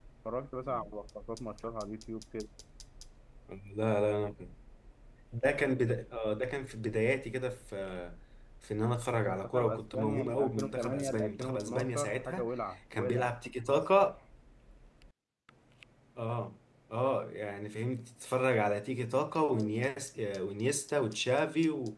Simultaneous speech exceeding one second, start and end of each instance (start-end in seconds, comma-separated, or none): 9.2-12.5